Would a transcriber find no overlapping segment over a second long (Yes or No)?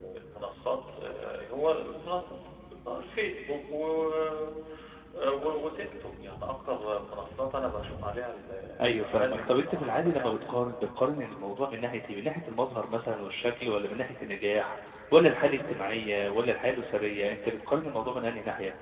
No